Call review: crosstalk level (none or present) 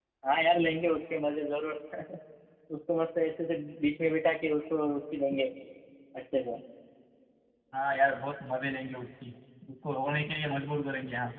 none